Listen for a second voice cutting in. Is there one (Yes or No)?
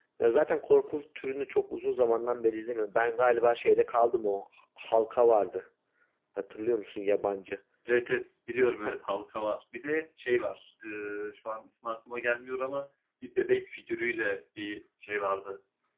No